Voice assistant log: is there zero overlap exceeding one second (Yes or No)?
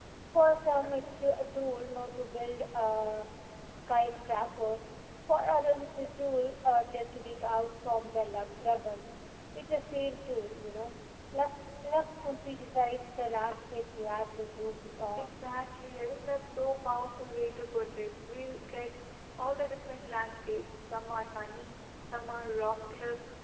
Yes